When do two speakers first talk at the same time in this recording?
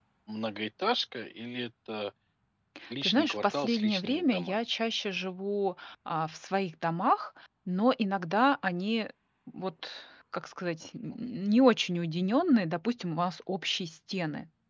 3.0 s

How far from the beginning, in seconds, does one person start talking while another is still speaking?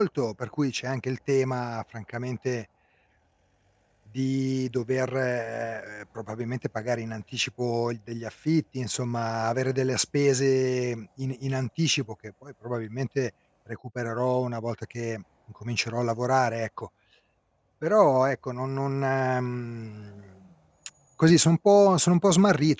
none

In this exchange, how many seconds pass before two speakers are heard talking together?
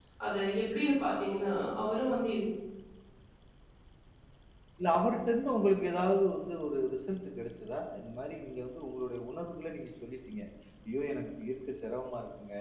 none

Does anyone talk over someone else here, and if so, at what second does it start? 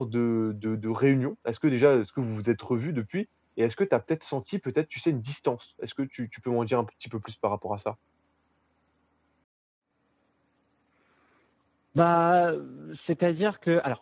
none

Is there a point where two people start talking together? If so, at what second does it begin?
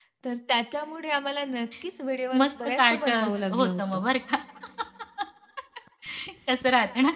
2.3 s

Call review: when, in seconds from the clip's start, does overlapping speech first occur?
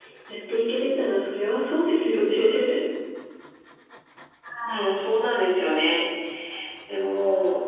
none

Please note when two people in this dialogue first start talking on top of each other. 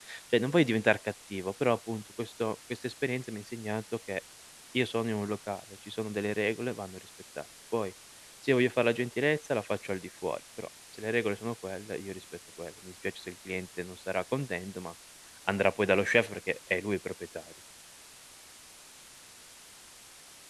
none

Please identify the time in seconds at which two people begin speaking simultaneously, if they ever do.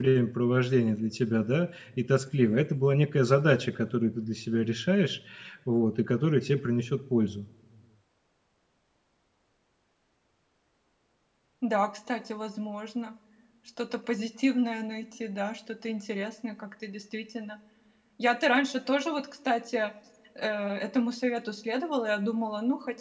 none

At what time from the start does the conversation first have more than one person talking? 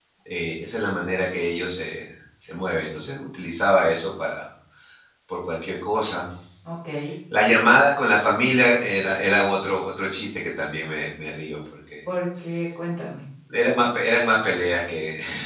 none

